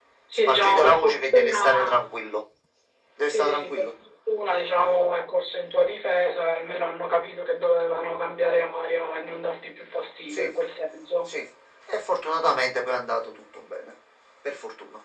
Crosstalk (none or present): present